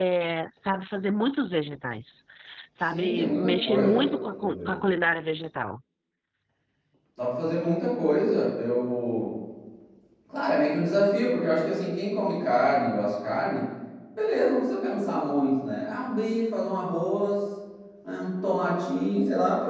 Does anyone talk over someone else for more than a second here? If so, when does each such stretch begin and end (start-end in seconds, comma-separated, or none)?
2.9-4.7